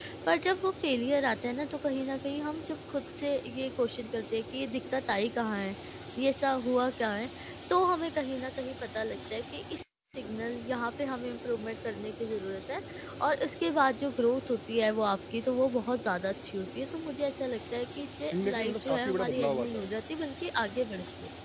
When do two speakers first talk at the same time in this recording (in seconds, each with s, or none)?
18.3 s